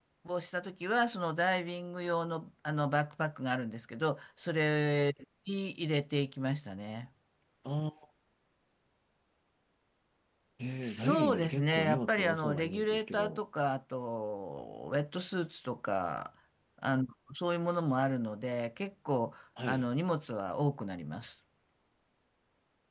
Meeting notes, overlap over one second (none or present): present